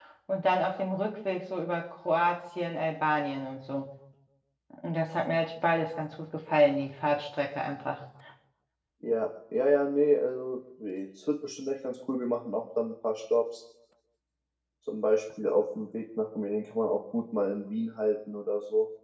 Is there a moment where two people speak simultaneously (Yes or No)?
No